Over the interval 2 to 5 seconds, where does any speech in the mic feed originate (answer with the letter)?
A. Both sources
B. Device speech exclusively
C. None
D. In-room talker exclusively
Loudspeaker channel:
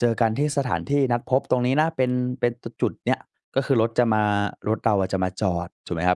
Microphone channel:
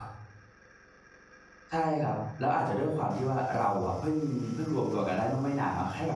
D